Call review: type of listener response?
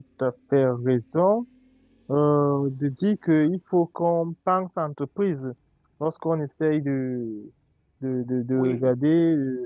listening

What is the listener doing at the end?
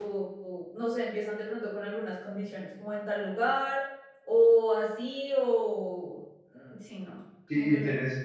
taking over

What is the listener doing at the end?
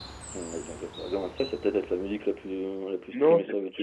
taking over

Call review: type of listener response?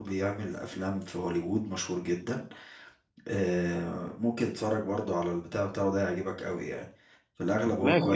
taking over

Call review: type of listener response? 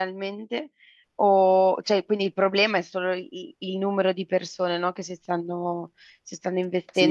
taking over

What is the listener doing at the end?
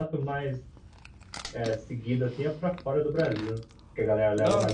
taking over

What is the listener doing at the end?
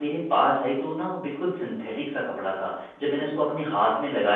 listening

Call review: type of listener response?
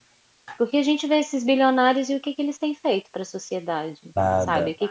listening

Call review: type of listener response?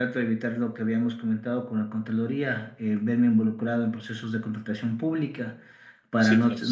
listening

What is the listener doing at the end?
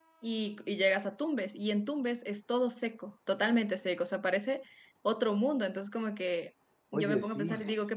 listening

